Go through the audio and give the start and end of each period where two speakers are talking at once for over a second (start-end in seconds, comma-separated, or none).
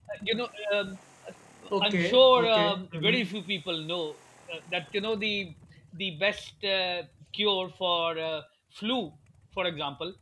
1.8-3.3